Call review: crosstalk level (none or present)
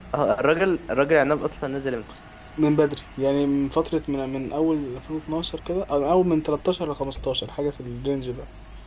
none